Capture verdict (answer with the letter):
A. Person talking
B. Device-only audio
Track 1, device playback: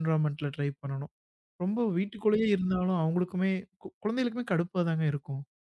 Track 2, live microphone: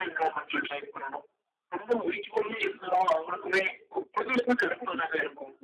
A